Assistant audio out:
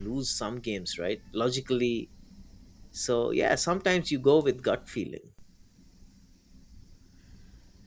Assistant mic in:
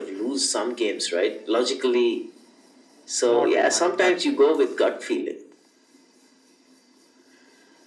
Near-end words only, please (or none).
not my gut feelings.